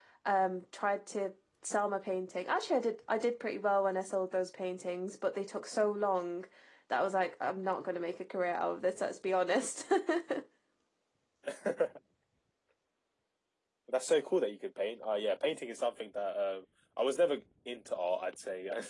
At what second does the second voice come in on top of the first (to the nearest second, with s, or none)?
none